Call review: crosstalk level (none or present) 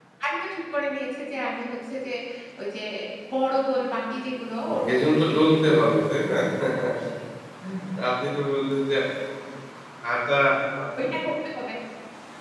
present